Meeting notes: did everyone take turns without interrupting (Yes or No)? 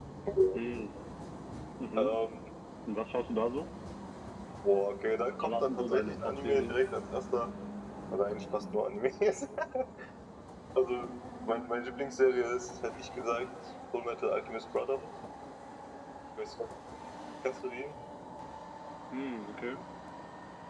No